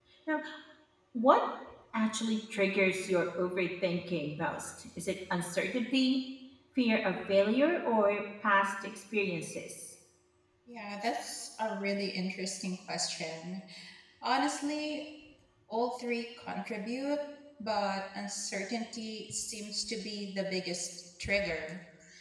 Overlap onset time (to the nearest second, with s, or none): none